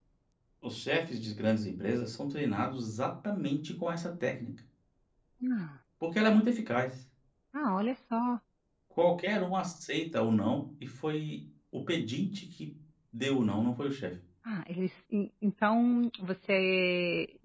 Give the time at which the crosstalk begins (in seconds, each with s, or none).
none